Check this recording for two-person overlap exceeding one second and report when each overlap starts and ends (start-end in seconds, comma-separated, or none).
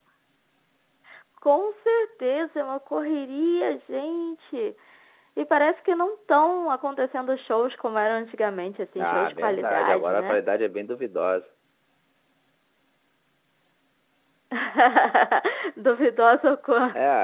9.0-10.4